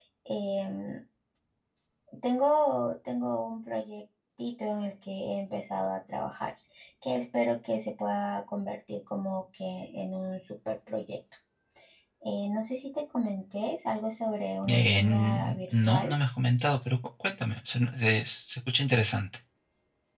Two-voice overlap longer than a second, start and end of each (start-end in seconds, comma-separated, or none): 14.7-16.1